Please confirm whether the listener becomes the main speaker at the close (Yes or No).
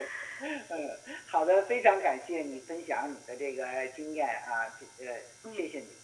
Yes